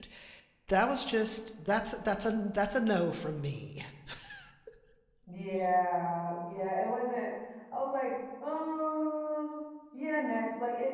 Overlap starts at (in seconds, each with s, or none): none